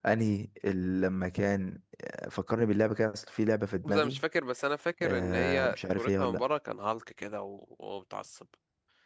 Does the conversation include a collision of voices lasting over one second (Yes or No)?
Yes